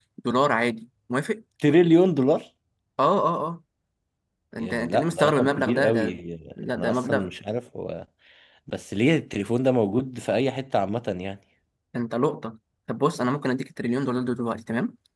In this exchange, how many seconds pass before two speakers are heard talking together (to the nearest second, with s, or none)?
5 s